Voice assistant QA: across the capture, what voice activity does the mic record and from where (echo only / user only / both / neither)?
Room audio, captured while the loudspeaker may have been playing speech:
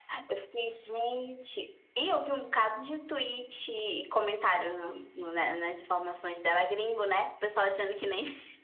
echo only